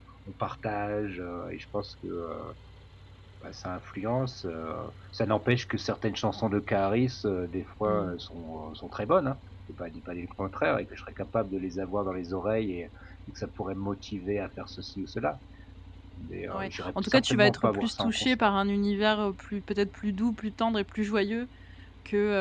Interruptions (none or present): present